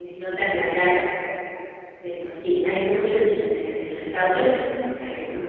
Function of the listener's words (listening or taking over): taking over